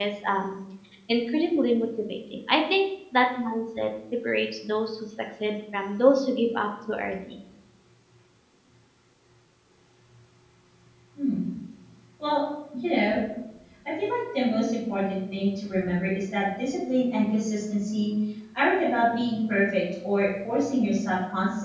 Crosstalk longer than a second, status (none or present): none